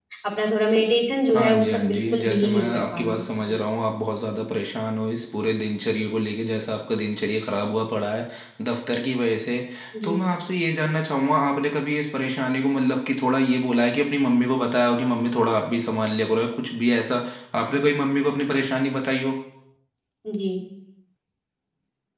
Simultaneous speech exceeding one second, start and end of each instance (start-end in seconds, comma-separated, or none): 1.3-3.6